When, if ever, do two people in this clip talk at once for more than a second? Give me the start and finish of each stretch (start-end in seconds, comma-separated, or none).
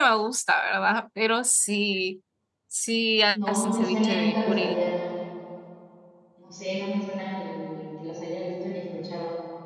3.3-4.8